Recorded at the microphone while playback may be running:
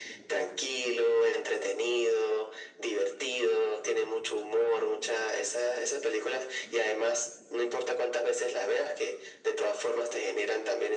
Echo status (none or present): present